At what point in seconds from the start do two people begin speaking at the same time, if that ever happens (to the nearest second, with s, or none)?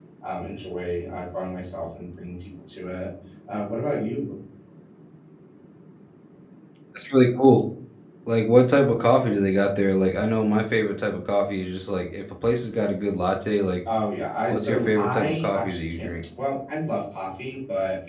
15 s